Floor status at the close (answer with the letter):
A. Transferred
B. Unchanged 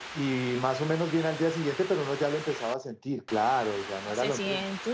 A